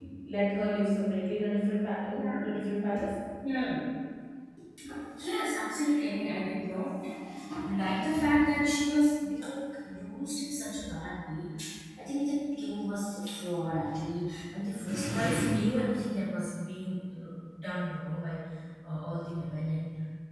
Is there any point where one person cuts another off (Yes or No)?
No